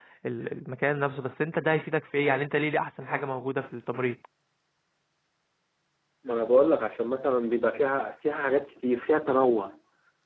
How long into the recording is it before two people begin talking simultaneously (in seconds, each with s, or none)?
none